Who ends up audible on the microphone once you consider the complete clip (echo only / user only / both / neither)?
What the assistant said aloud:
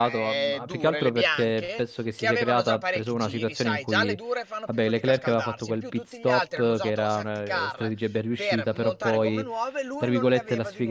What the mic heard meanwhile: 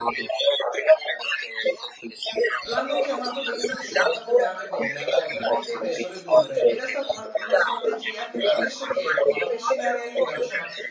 both